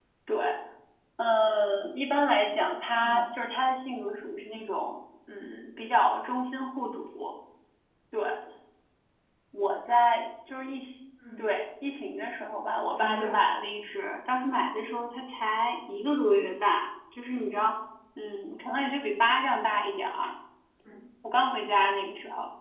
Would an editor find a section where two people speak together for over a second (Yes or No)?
No